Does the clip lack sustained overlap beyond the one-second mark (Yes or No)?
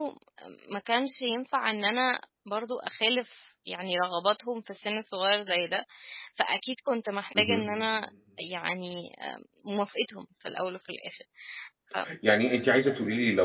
Yes